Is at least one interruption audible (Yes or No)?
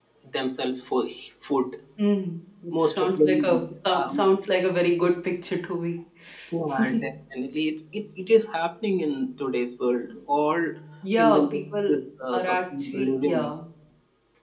Yes